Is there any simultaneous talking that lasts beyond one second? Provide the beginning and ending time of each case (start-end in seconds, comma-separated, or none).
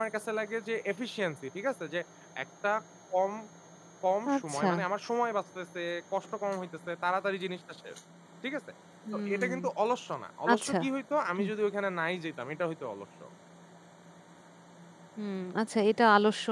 none